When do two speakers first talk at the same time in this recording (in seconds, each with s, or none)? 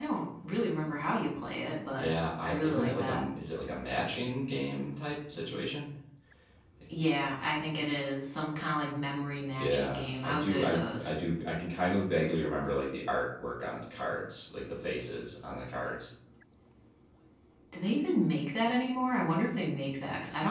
2.0 s